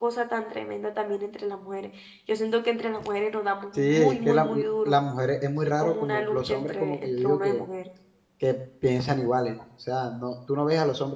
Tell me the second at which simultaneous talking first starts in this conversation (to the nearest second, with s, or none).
4 s